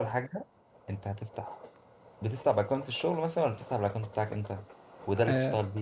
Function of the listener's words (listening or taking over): taking over